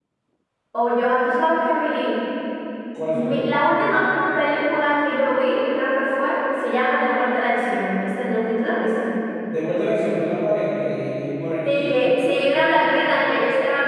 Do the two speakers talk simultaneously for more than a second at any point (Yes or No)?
Yes